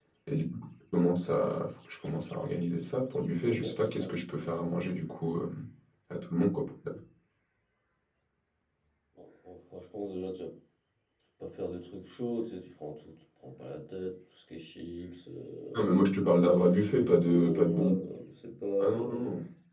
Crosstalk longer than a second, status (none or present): present